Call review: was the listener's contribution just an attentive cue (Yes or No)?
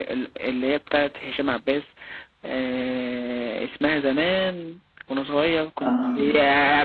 Yes